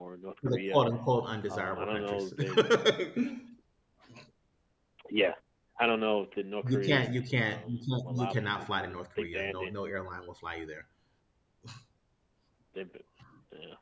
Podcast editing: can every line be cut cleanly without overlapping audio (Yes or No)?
No